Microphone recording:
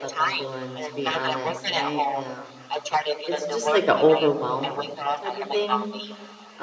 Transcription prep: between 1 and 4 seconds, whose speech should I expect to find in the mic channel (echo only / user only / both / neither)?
both